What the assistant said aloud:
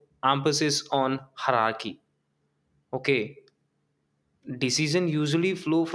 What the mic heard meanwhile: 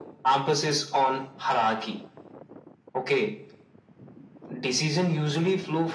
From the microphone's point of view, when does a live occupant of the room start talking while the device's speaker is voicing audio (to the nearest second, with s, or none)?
none